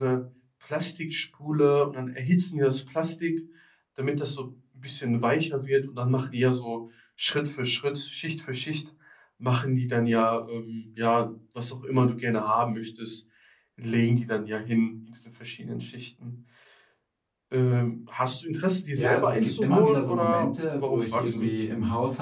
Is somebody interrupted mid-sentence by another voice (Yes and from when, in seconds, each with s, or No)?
Yes, from 19.0 s